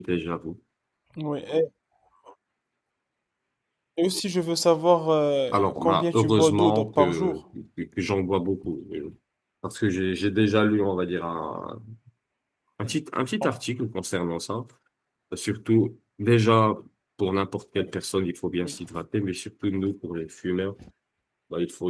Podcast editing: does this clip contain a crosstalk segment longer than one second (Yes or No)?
Yes